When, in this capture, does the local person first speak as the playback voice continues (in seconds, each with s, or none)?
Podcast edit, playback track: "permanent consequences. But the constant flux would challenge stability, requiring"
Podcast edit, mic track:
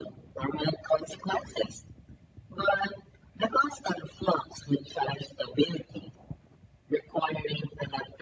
none